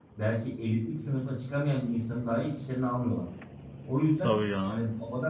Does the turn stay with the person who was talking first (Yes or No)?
Yes